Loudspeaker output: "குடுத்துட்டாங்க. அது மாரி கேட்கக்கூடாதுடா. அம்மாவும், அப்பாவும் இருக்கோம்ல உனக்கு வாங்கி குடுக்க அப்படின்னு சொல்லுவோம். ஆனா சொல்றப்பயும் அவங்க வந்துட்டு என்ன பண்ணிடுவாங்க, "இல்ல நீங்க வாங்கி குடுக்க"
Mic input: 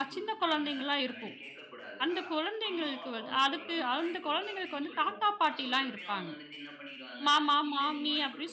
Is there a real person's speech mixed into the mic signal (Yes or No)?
Yes